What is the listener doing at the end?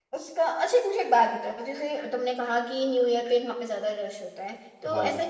listening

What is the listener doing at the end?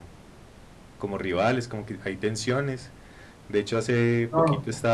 listening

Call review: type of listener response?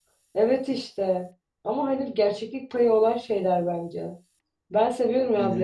listening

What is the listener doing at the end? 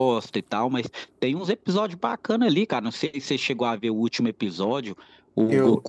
listening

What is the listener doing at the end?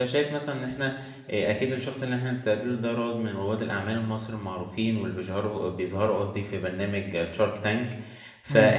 listening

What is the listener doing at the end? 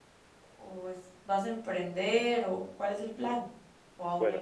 taking over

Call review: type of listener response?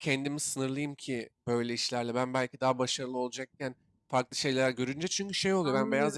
listening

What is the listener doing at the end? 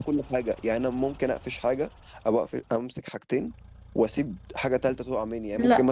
listening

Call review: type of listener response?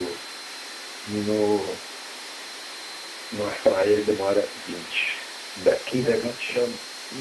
taking over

